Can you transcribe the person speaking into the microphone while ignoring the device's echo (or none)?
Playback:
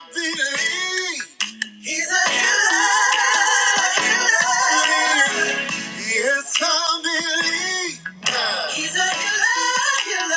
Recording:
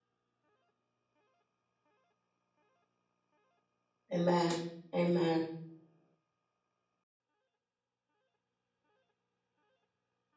Amen. Amen.